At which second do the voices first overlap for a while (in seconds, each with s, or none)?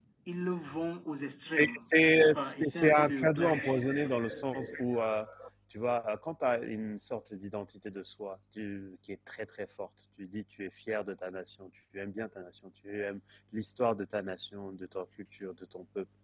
1.6 s